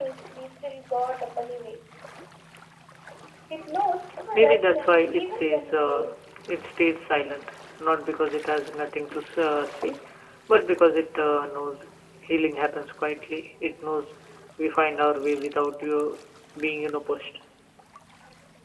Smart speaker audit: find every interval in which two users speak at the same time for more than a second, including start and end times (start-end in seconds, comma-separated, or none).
4.3-6.1